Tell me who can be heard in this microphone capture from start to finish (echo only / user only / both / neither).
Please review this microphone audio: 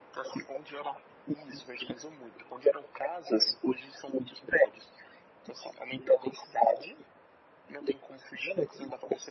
echo only